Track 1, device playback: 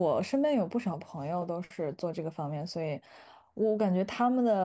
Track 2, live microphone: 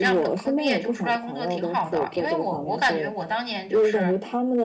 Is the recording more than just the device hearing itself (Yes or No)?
Yes